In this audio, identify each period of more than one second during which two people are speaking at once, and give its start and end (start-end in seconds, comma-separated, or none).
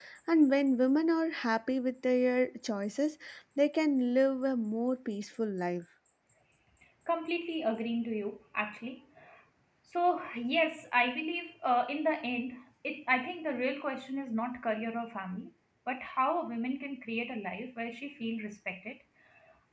none